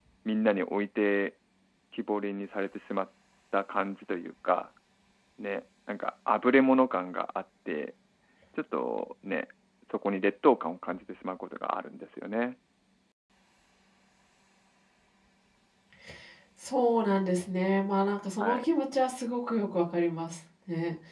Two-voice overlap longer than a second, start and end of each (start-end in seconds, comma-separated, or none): none